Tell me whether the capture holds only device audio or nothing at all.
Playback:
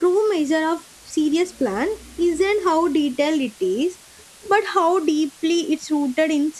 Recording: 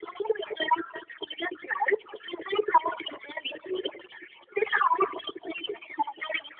Yes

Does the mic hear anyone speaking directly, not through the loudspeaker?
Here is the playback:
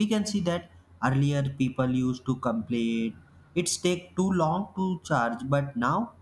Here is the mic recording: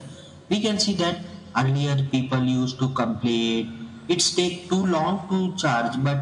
No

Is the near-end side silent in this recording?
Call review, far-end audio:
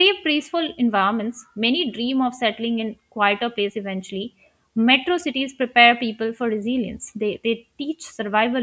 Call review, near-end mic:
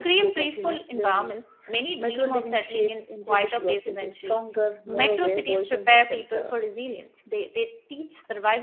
No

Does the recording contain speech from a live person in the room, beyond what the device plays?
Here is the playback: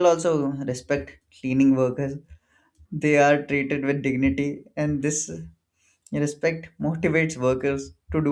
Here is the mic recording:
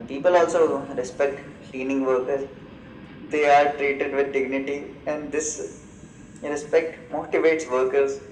No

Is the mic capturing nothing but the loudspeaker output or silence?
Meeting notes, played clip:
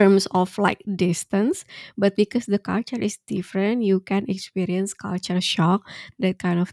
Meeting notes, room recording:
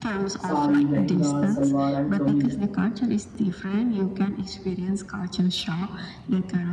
No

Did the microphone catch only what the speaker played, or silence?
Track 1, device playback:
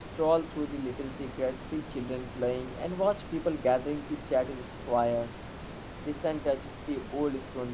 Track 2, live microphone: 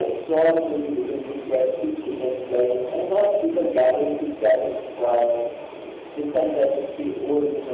Yes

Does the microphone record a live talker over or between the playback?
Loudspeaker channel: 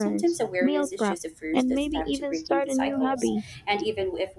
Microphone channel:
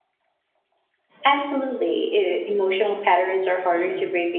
Yes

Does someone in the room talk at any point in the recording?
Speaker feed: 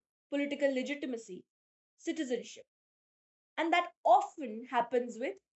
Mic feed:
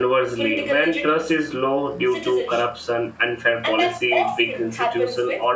Yes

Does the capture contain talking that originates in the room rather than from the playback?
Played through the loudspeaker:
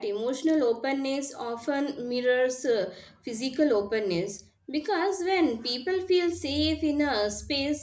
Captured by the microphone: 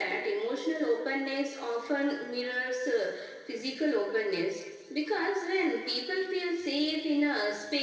No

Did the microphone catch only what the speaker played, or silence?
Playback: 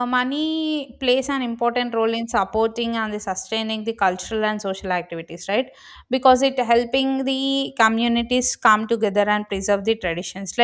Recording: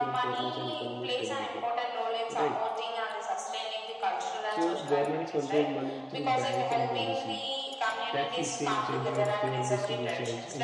No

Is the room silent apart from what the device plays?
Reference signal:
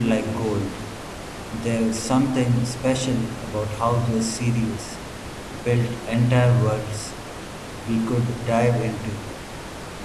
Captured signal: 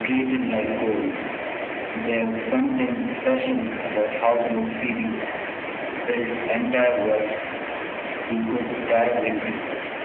Yes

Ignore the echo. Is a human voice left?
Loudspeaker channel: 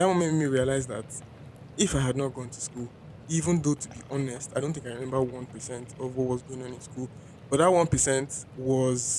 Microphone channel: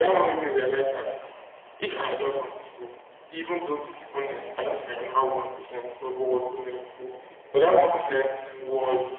No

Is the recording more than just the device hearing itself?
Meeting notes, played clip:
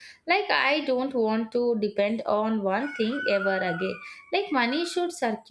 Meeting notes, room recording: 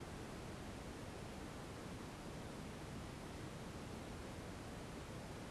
No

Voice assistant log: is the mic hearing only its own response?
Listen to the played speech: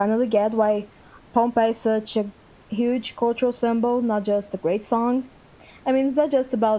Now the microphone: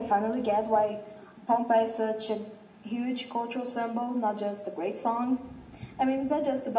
Yes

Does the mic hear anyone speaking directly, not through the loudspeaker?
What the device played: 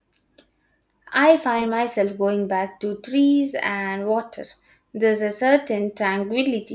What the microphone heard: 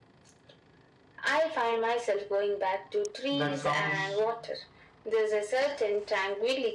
Yes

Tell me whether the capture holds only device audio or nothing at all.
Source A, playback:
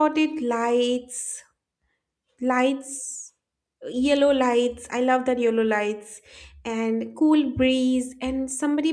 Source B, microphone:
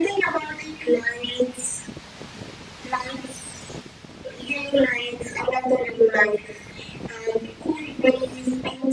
Yes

